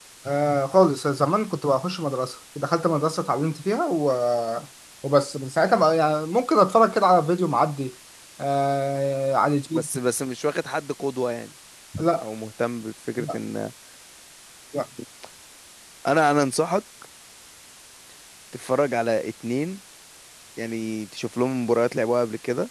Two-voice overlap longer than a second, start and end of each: none

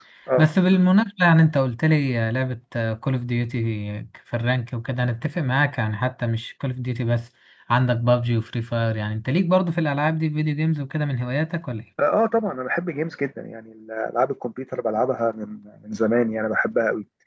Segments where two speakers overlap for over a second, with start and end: none

